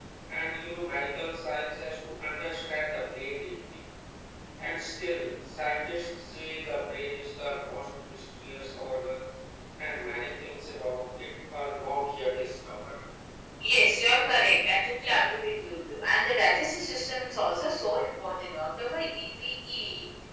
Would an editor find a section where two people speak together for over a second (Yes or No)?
No